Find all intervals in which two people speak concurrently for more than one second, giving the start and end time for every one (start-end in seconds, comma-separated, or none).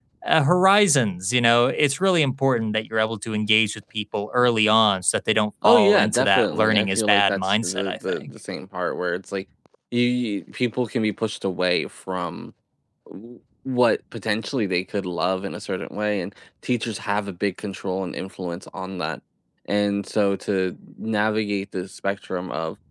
5.6-8.2